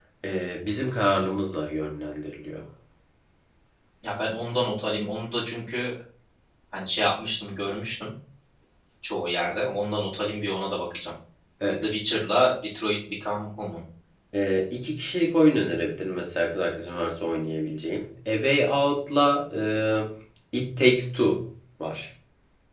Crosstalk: none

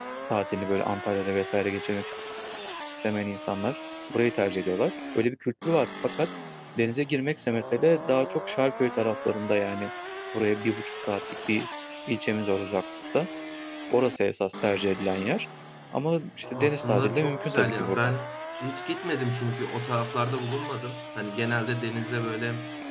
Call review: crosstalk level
present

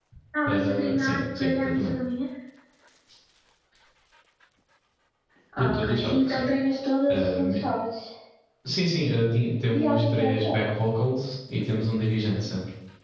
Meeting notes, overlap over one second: present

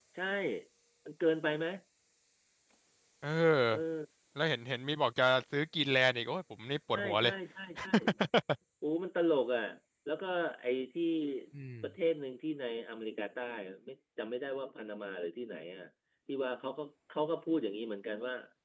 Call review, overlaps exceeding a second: none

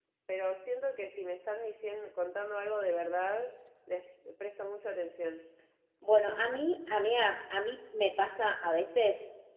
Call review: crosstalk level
none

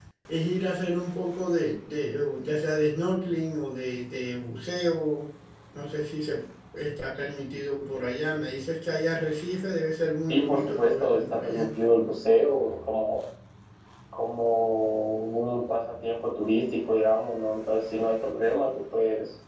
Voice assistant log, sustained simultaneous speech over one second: present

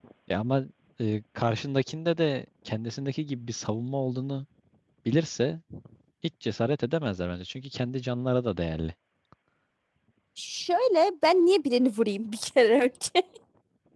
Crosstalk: none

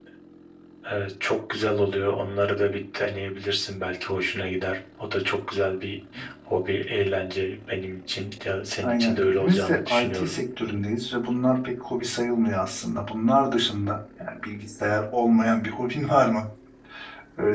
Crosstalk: present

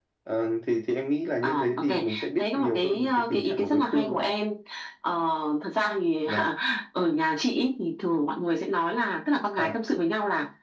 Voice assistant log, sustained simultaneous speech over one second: present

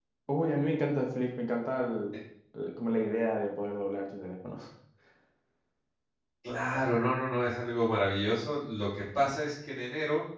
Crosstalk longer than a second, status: none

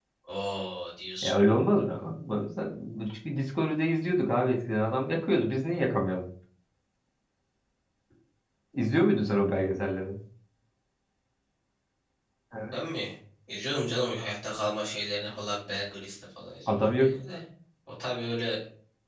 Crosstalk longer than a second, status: none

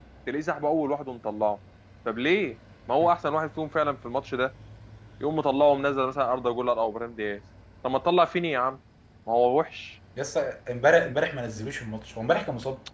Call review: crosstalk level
none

